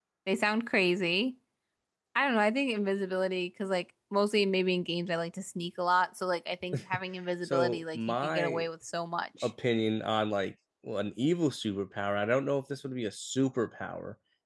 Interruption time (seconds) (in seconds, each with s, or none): 7.4 s